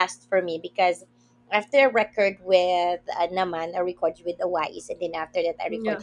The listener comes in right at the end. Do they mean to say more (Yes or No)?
No